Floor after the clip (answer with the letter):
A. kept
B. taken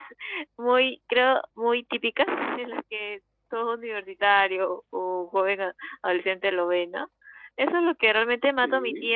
A